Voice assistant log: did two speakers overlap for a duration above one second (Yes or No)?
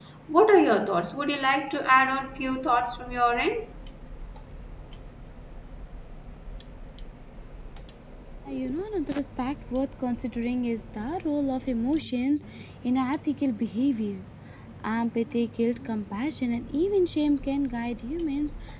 No